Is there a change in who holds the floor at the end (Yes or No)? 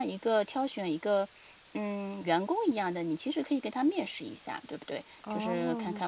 No